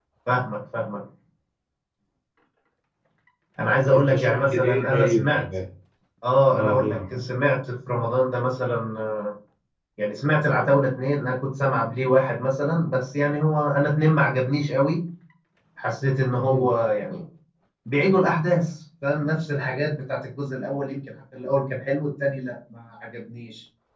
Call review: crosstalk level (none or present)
present